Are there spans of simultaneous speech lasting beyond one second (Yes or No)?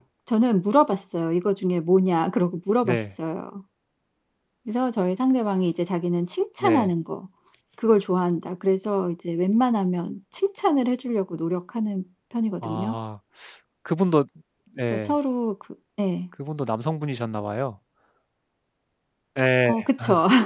No